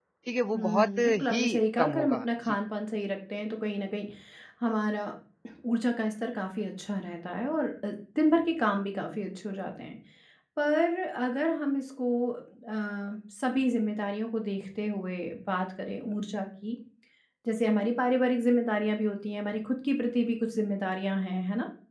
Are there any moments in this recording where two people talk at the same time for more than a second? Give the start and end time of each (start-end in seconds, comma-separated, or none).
0.5-2.6